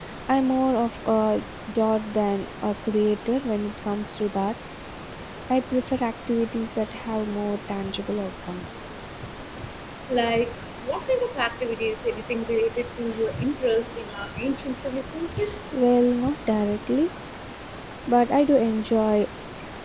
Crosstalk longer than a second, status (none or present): none